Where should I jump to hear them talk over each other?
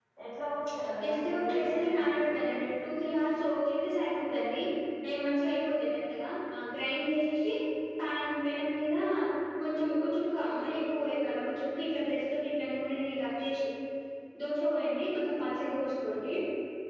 1 s

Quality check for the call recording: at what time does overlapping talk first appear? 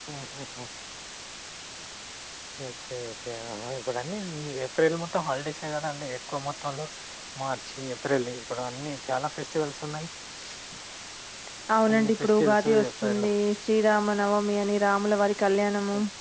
12 s

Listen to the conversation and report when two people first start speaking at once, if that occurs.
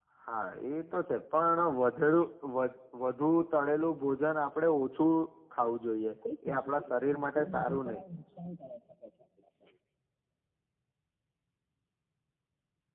6 s

